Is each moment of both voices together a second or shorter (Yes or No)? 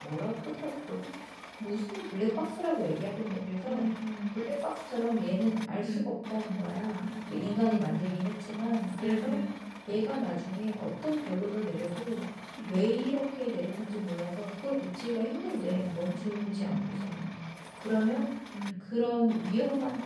No